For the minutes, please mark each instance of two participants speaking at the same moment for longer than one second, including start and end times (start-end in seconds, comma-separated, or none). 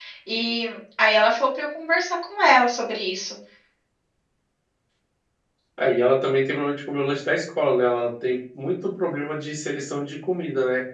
none